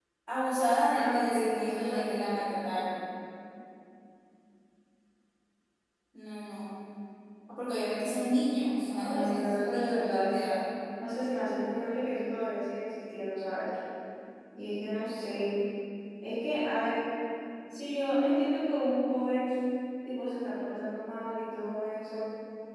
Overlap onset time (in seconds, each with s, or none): 0.9 s